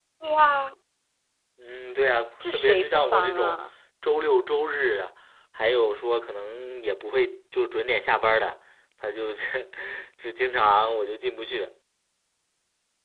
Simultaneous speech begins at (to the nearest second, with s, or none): 2 s